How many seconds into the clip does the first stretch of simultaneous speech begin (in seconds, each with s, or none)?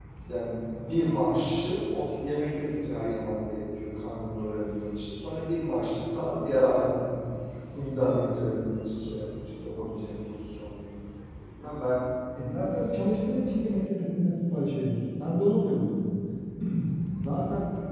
none